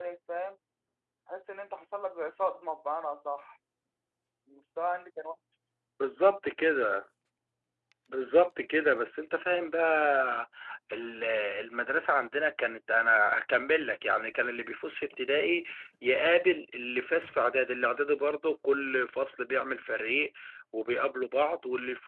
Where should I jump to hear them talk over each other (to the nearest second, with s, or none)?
none